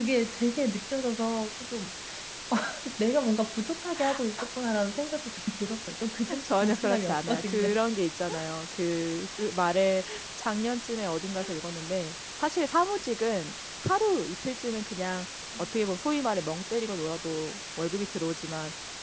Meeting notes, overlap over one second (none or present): present